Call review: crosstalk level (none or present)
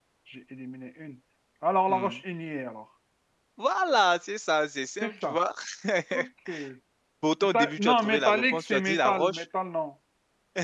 present